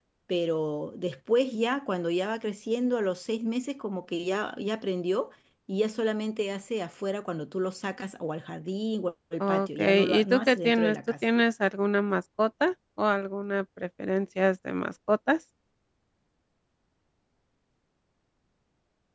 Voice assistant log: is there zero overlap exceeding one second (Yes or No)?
No